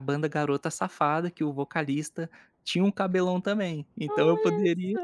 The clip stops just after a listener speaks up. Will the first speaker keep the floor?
No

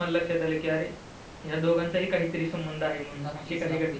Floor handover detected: Yes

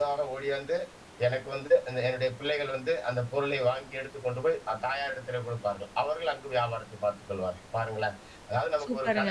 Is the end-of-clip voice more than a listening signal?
Yes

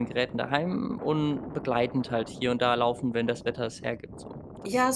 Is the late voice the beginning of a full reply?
Yes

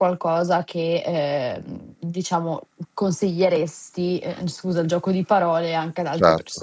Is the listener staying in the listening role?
No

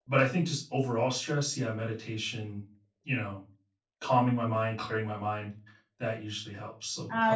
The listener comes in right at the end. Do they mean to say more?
Yes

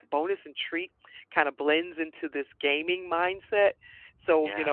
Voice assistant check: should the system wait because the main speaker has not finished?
Yes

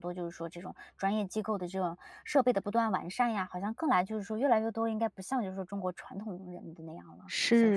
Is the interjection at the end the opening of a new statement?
Yes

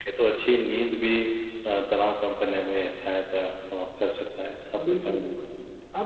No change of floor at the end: No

